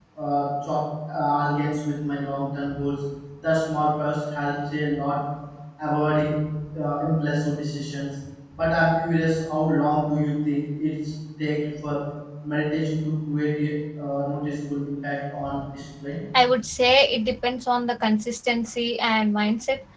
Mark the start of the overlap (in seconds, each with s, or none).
none